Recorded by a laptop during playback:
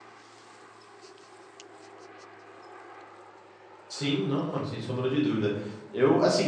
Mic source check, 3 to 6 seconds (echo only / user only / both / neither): user only